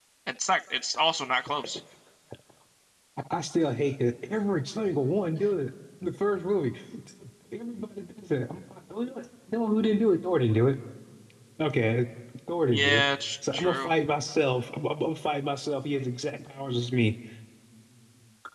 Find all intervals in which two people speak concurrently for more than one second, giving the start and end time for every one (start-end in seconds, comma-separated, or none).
none